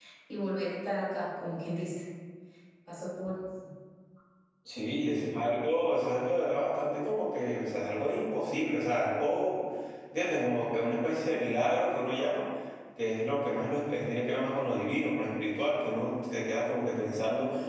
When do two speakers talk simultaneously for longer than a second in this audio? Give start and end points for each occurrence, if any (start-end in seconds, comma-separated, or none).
none